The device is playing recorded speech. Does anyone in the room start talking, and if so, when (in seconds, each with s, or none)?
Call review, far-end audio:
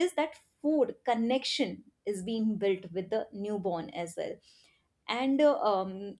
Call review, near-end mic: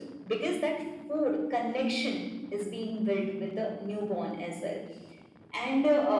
none